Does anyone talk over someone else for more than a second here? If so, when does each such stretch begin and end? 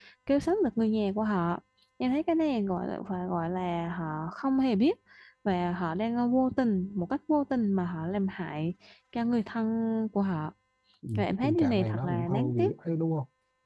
11.2-12.7

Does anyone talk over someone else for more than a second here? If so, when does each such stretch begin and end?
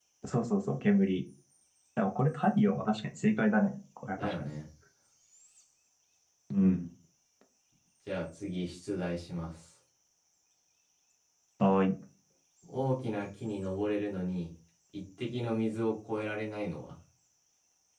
none

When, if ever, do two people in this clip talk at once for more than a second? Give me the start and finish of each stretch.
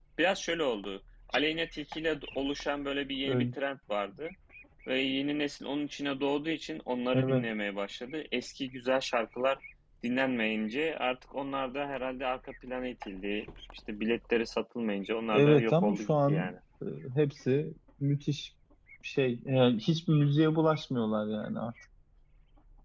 15.3-16.6

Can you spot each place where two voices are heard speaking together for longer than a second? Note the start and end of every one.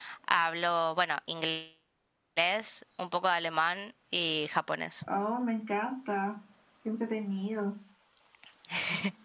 none

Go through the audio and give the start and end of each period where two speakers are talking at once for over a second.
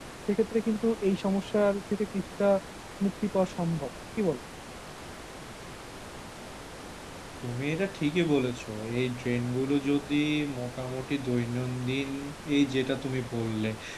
none

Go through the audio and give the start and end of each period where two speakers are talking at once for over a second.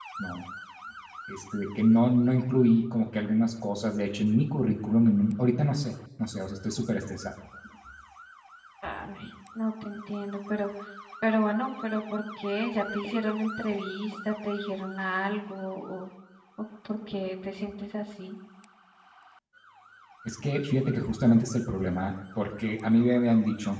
none

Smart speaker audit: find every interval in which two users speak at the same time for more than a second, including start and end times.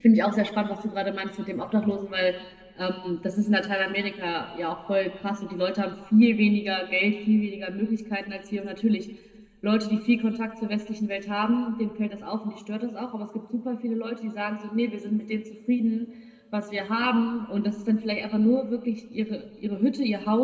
none

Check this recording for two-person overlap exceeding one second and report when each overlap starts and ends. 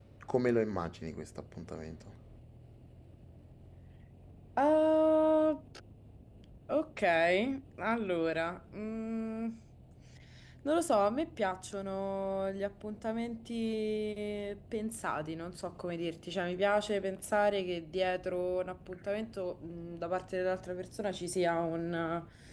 none

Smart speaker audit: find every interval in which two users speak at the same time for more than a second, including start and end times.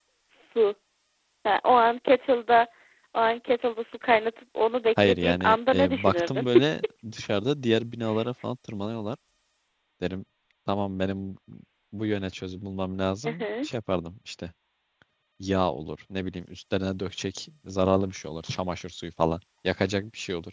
5.0-6.5

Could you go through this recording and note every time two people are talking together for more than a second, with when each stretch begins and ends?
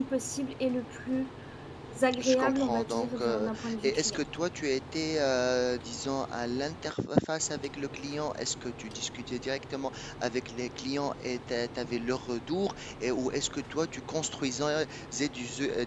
2.2-4.2

